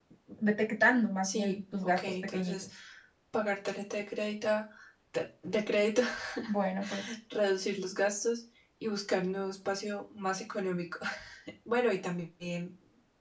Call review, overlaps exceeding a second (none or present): present